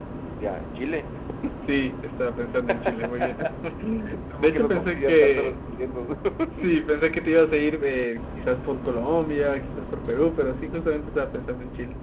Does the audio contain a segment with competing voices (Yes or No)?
Yes